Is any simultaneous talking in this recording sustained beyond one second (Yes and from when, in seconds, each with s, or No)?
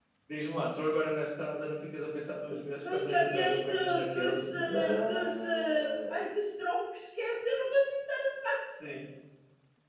Yes, from 2.8 s